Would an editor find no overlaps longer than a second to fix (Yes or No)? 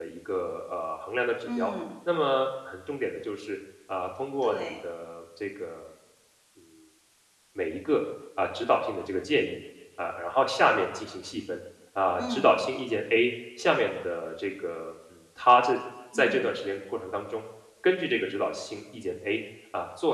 Yes